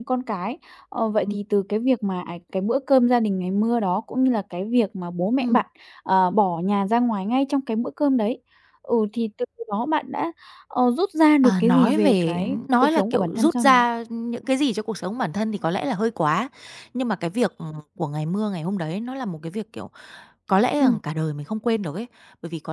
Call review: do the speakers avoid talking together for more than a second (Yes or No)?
No